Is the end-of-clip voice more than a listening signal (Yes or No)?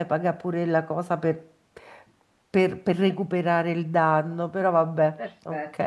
Yes